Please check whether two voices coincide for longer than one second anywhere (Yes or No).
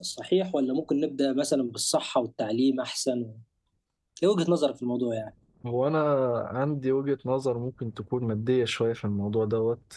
No